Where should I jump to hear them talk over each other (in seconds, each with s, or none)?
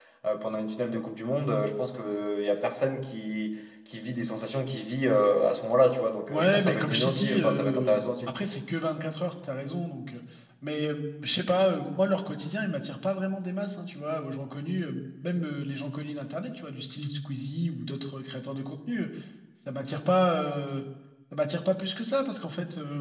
6.3 s